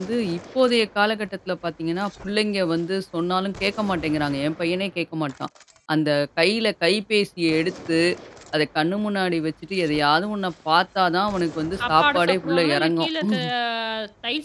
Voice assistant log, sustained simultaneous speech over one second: present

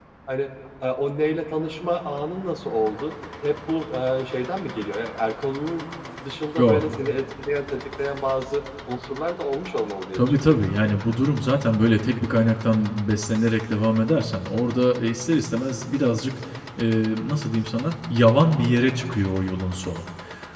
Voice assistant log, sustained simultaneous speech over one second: none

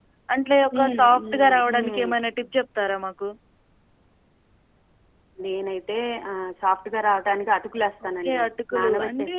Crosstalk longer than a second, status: present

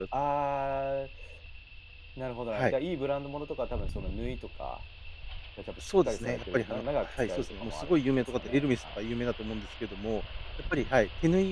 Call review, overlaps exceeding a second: present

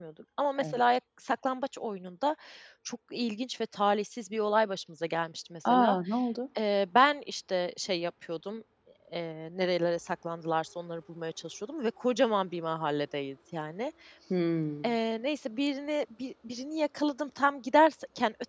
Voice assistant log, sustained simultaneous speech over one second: none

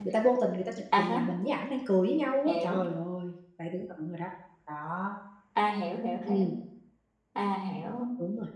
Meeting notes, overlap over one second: none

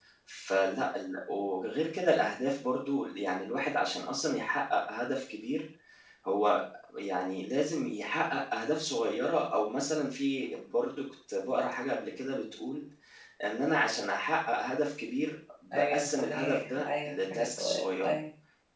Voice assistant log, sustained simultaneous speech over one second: present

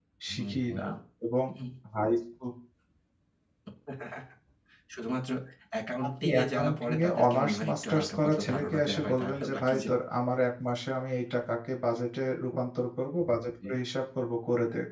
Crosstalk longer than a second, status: present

